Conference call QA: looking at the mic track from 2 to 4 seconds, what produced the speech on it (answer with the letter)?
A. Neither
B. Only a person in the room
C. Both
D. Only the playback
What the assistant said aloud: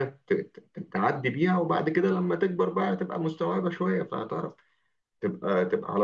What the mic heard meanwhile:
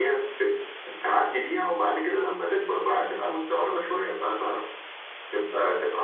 D